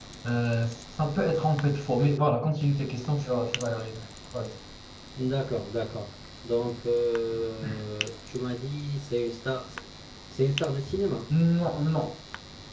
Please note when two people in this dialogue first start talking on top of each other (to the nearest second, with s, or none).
none